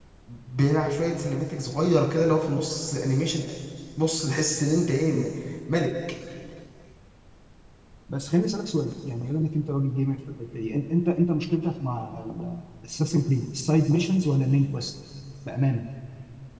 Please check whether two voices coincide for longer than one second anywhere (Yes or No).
No